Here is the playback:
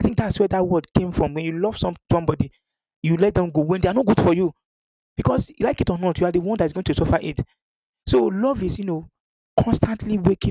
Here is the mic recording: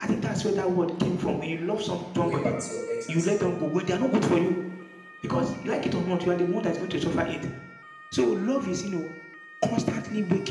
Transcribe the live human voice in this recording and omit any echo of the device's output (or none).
going back to your ex and say, "Oh,